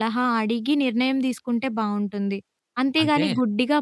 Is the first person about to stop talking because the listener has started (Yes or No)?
No